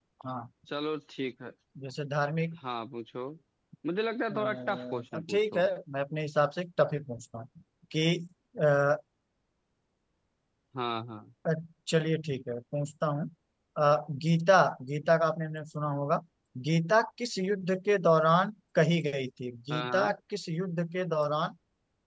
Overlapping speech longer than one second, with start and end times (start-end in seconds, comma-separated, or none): 4.3-5.7